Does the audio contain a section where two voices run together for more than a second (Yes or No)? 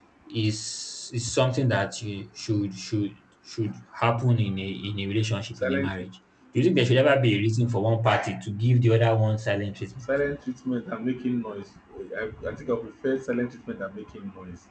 No